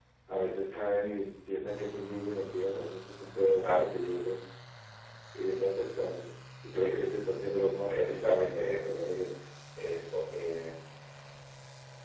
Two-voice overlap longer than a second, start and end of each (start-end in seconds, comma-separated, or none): 7.9-9.2